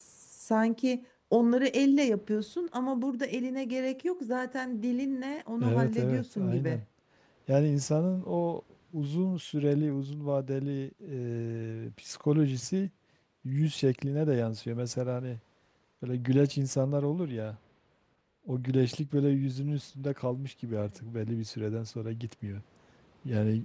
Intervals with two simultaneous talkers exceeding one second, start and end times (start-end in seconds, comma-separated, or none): 5.6-6.8